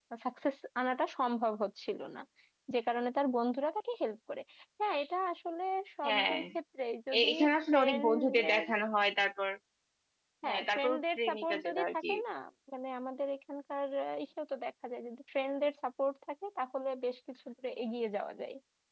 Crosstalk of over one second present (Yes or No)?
Yes